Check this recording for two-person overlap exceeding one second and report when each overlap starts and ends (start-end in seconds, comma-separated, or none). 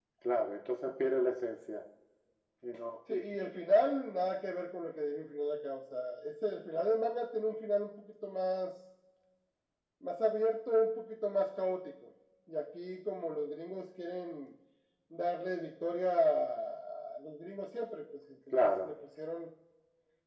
none